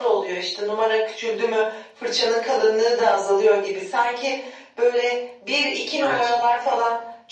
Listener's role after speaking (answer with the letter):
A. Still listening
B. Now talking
A